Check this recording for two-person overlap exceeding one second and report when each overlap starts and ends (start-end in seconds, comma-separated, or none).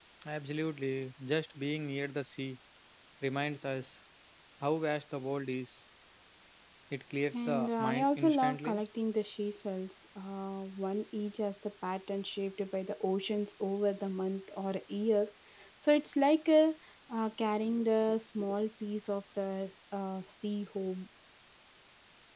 7.3-8.8